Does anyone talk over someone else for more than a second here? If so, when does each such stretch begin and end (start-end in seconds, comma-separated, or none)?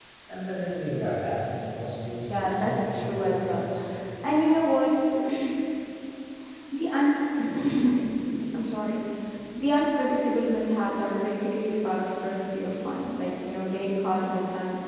2.3-3.7